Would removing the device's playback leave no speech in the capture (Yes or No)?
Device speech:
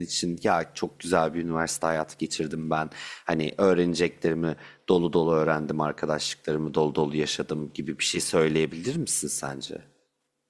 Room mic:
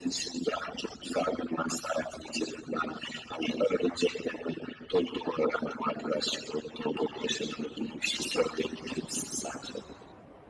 Yes